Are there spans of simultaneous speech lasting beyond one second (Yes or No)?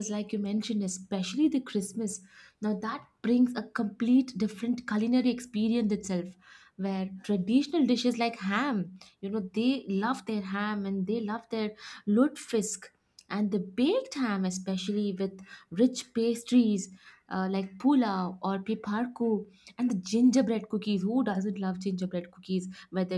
No